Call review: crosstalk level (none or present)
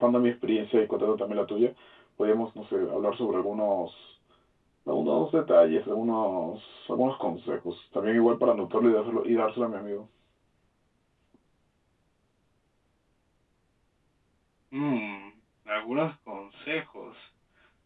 none